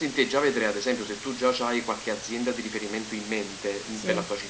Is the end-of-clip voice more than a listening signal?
No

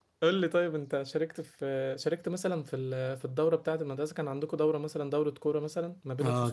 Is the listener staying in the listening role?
No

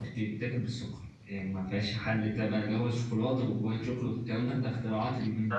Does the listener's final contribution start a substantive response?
Yes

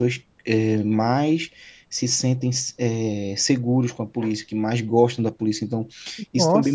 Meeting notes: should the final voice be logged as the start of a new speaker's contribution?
No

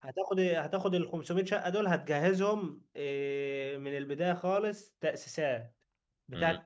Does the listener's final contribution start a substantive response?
No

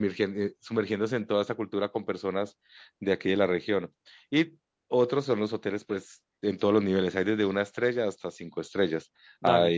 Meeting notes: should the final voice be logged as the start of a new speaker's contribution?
No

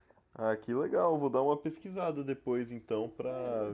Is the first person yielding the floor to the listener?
Yes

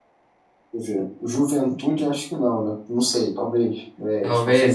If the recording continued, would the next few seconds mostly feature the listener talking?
No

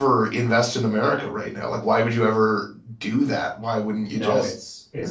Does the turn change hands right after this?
Yes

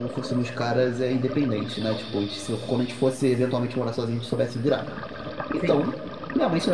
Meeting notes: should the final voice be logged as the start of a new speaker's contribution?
No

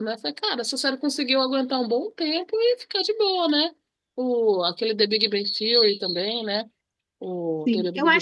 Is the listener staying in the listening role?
No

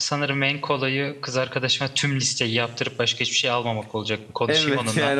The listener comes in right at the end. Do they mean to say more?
Yes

